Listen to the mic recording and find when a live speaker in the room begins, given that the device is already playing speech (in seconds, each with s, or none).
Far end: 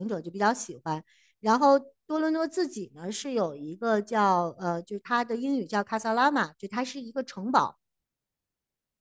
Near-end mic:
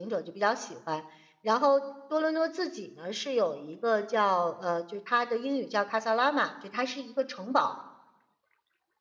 none